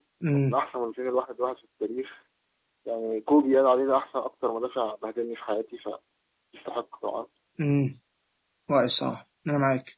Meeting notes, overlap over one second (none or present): none